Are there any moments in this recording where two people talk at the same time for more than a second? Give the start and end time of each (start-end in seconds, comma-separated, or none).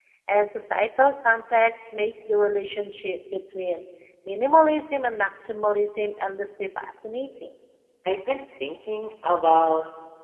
none